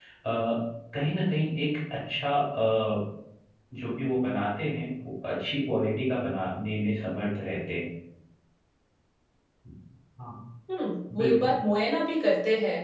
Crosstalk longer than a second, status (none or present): none